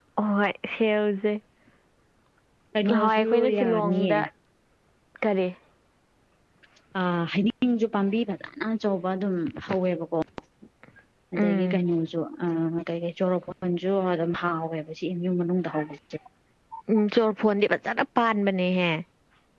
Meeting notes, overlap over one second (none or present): present